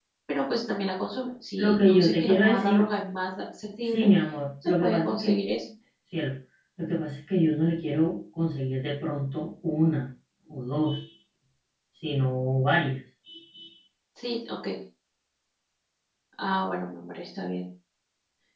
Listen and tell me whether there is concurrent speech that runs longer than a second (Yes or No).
Yes